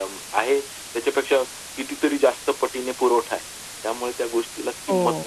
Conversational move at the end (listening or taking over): taking over